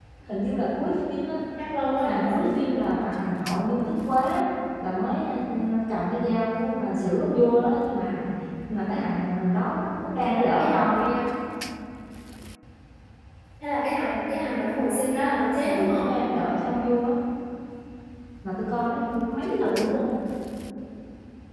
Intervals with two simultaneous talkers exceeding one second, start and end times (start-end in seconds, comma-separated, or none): none